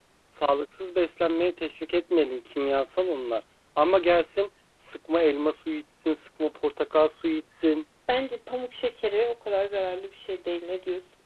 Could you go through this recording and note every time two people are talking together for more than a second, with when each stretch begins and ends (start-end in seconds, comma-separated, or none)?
none